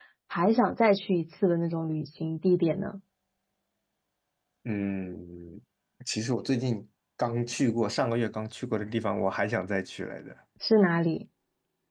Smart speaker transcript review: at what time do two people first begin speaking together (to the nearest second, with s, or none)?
none